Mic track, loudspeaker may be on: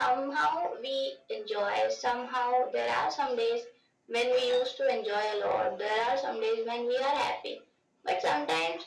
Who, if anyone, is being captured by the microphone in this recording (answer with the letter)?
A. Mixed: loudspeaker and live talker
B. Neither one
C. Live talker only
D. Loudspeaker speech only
D